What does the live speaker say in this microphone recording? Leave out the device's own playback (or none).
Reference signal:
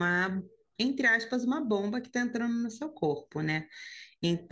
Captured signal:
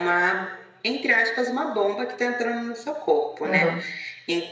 aham.